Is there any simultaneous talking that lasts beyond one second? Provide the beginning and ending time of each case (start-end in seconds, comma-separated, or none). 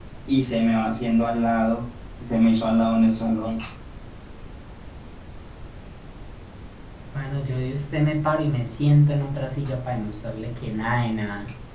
none